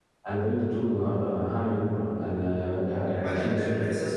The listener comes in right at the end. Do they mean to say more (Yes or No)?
Yes